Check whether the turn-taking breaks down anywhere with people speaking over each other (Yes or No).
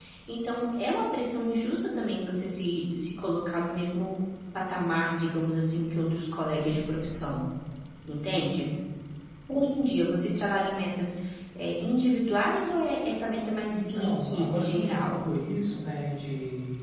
Yes